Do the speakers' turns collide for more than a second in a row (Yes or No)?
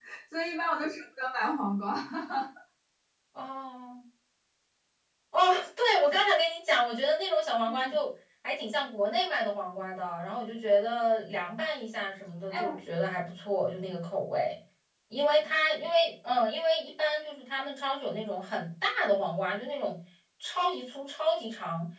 No